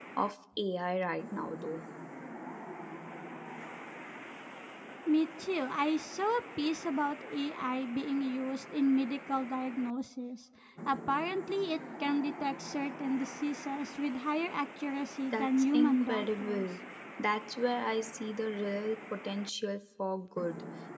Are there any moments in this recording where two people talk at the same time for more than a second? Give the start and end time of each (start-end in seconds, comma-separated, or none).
15.3-16.7